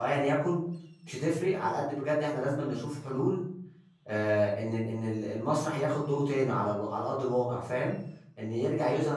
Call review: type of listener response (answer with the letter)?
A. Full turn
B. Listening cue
B